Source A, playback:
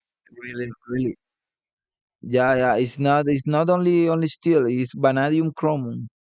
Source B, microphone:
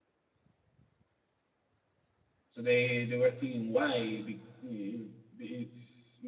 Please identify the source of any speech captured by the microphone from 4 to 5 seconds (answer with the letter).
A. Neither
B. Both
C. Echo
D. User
D